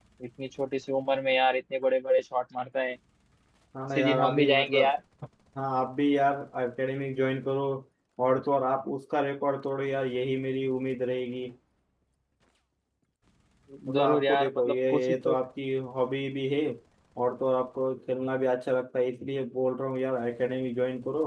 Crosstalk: present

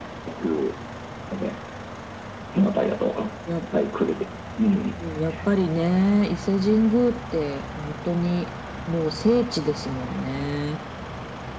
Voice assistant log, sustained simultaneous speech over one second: none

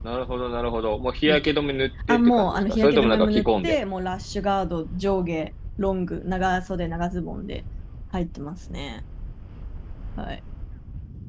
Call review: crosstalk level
present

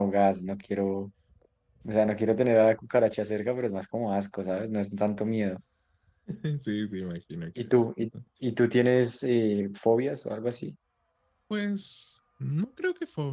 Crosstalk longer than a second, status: none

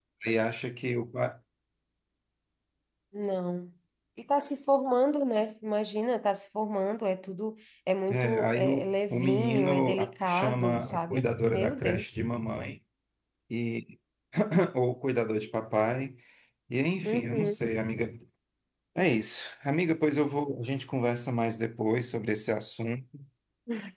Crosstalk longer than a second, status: present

